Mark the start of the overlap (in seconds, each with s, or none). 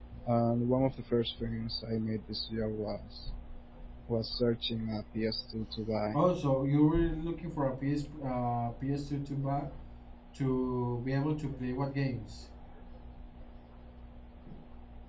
none